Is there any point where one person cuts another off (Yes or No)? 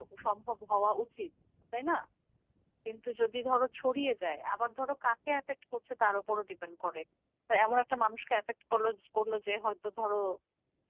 No